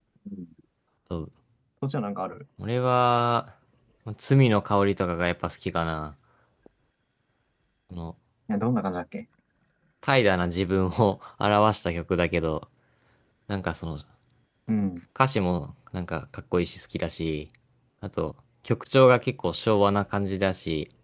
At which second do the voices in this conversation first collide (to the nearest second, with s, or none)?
none